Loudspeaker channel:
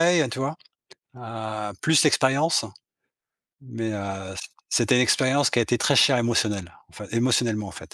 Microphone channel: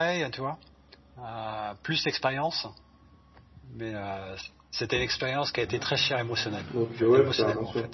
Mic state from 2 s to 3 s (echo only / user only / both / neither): echo only